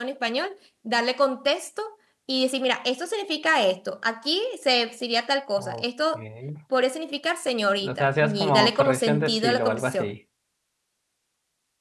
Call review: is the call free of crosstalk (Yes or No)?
No